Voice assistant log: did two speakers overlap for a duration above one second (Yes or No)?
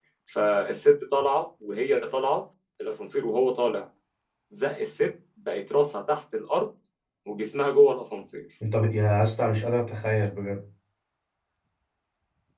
No